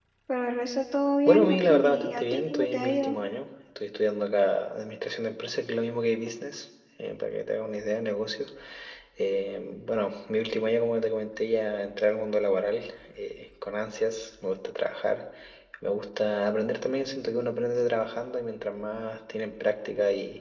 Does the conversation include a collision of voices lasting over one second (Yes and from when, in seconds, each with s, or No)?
Yes, from 1.2 s